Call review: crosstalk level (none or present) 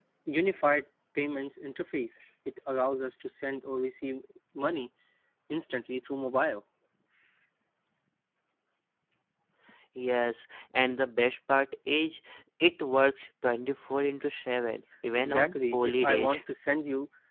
present